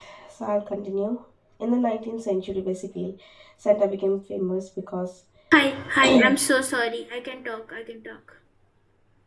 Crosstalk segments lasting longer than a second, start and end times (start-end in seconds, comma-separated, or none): none